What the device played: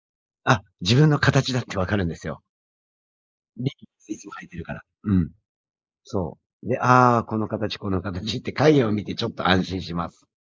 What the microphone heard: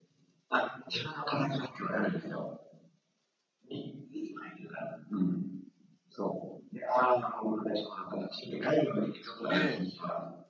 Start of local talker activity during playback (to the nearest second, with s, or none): 9 s